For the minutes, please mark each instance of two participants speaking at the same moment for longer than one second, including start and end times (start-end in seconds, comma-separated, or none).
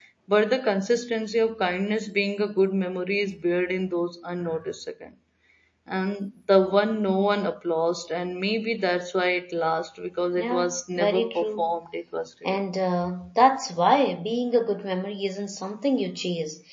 10.4-11.7